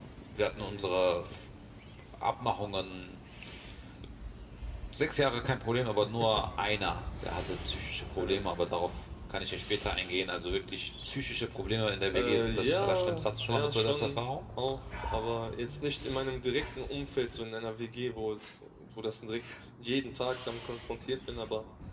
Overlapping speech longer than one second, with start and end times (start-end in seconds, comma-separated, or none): 12.1-14.2